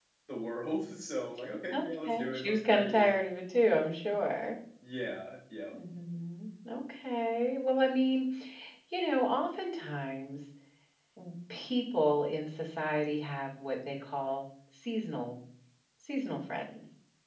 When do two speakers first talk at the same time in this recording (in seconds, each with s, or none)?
1.7 s